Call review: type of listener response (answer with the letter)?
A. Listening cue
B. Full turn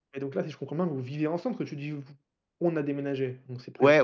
B